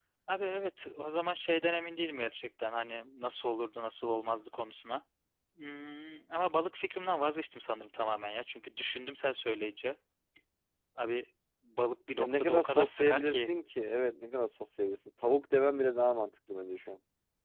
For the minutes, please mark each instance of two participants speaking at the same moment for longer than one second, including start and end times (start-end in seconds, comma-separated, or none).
12.2-13.5